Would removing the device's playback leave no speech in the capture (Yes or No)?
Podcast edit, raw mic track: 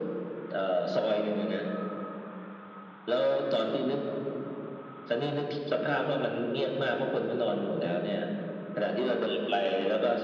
Yes